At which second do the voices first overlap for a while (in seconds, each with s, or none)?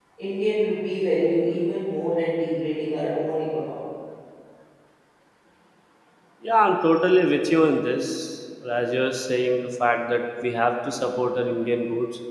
none